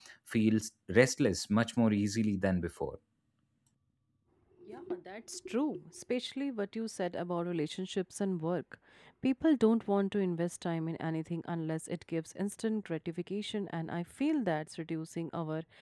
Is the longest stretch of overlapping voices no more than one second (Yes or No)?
Yes